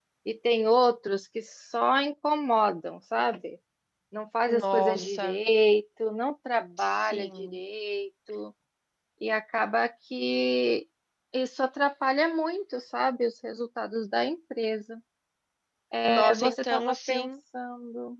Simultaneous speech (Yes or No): Yes